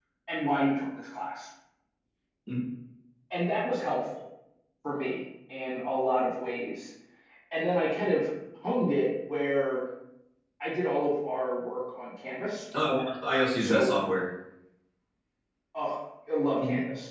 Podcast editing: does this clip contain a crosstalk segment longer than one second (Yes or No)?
No